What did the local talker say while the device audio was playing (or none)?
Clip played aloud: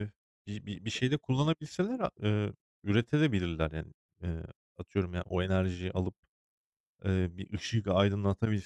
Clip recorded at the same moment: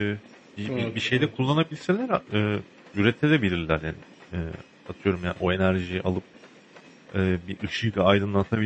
Evet, evet,